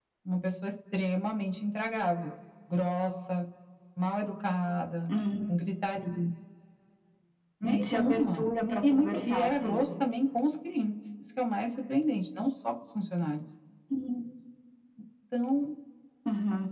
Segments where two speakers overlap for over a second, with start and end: 7.6-9.8

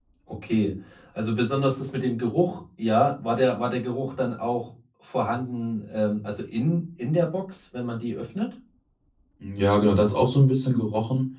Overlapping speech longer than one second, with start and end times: none

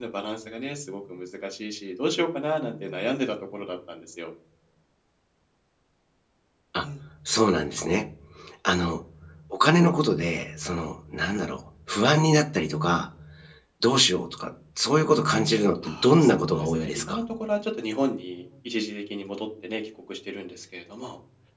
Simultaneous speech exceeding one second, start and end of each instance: 15.8-17.2

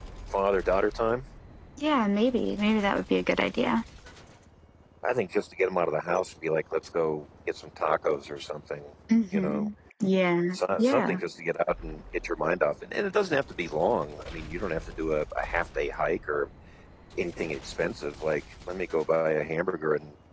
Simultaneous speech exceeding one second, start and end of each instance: none

